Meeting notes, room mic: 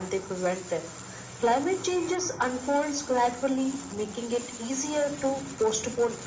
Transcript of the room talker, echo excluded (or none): none